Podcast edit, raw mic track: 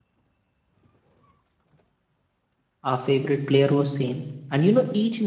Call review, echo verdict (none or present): none